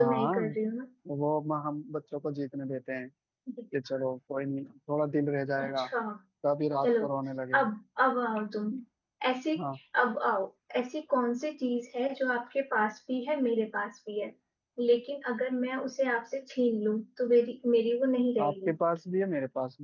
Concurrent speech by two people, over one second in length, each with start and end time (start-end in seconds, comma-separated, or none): none